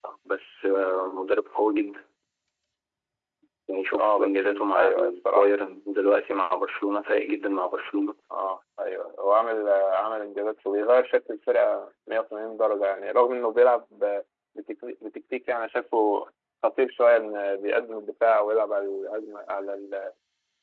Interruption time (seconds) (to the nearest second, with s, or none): 4 s